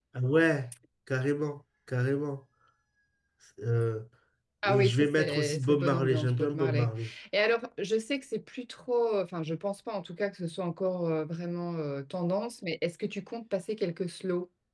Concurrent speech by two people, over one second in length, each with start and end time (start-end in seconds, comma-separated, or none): 4.7-6.9